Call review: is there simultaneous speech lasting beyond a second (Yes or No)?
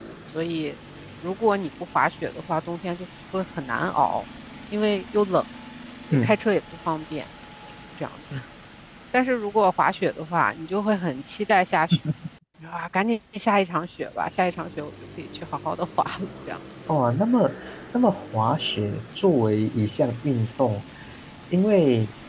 No